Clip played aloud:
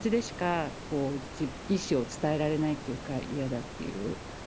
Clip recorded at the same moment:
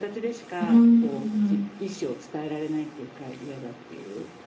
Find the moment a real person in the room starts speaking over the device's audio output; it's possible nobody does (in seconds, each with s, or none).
0.6 s